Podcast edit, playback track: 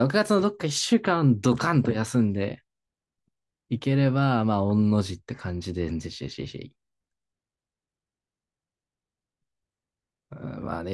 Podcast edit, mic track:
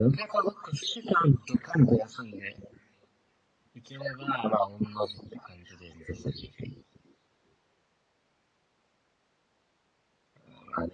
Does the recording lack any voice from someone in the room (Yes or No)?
Yes